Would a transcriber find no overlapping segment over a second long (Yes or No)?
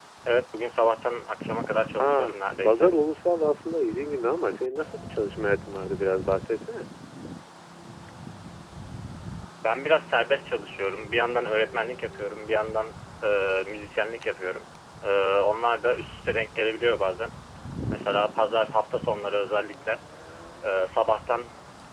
Yes